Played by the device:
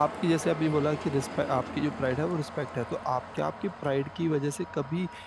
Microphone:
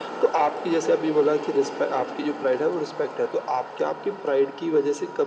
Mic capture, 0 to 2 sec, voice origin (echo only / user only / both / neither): echo only